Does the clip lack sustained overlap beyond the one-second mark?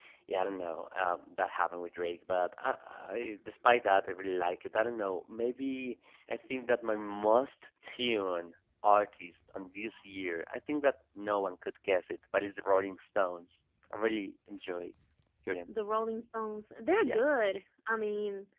Yes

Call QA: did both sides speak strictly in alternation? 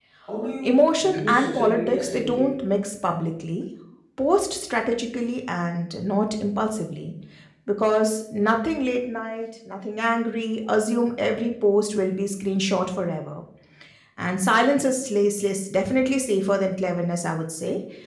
No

